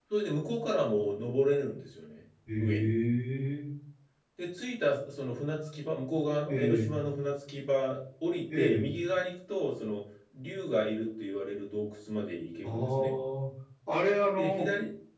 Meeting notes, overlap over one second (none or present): none